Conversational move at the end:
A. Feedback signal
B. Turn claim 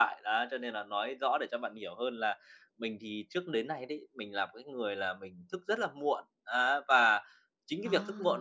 A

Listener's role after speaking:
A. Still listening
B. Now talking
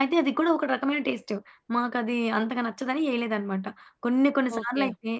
A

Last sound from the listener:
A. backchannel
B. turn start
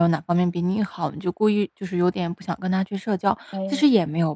A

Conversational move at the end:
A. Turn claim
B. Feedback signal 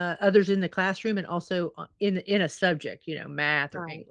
A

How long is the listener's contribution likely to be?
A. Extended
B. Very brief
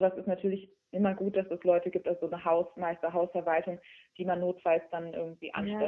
A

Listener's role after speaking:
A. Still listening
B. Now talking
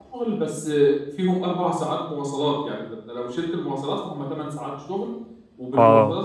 A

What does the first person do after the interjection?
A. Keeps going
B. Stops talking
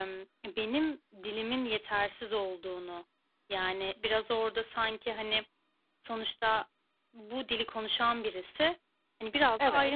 A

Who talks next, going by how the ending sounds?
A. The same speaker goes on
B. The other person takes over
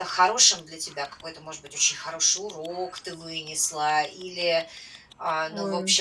A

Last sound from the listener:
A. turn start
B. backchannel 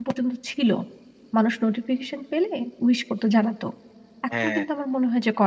B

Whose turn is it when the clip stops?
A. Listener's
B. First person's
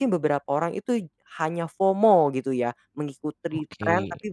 B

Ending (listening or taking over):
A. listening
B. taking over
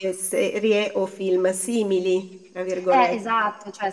B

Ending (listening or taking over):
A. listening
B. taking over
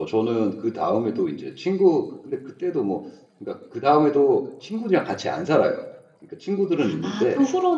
B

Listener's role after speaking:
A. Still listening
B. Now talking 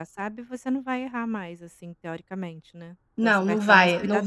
B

